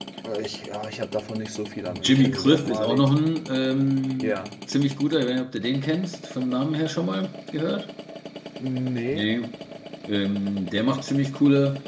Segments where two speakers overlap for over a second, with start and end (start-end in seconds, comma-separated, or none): 1.9-3.1